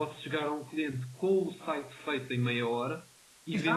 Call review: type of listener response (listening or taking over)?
listening